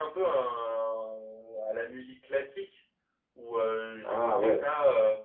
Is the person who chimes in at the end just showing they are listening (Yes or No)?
Yes